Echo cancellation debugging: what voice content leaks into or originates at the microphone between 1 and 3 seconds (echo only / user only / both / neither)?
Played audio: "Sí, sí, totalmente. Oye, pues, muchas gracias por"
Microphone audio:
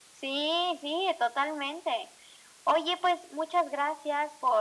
echo only